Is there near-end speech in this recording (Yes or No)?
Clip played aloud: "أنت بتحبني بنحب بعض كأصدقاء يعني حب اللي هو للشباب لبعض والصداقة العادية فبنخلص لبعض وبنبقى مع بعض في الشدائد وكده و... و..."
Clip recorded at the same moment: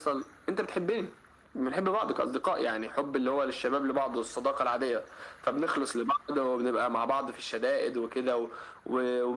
No